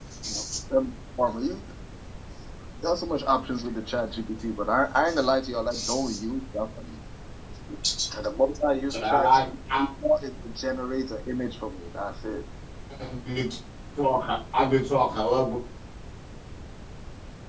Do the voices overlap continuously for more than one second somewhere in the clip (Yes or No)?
No